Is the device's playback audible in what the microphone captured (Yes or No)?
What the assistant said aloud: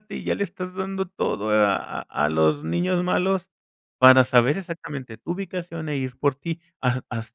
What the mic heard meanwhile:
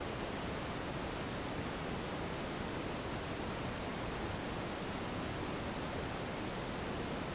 No